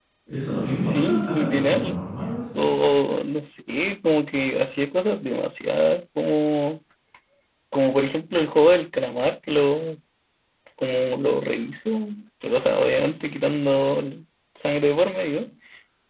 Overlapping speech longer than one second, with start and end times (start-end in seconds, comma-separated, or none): 0.8-2.0